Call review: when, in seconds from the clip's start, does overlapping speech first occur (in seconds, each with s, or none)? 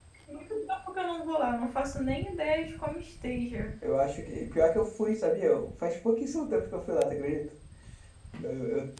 none